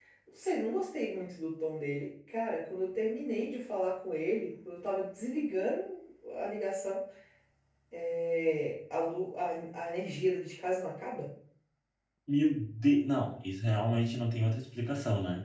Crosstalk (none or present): none